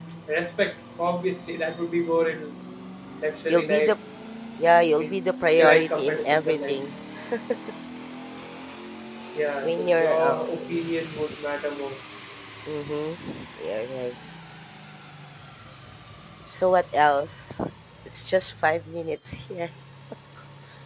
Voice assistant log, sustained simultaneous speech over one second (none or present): present